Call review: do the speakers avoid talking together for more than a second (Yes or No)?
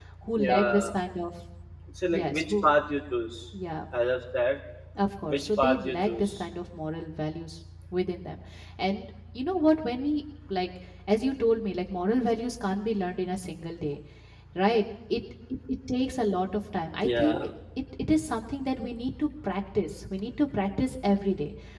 No